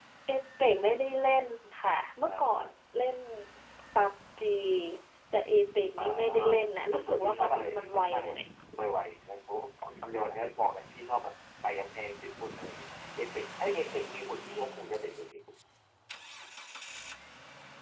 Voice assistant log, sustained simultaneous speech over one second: present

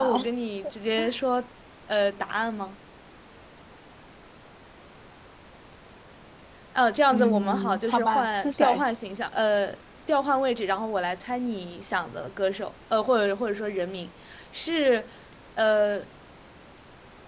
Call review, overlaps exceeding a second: present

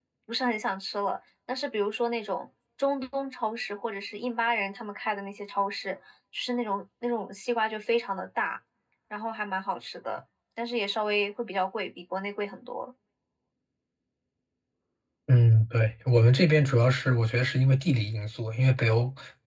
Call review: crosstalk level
none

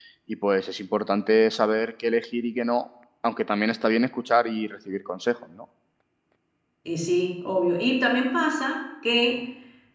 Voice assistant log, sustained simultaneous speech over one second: none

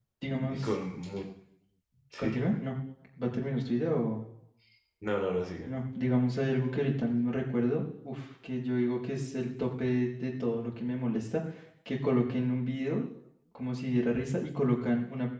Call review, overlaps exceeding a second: none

